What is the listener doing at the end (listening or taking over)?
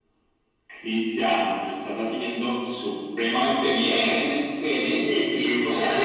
taking over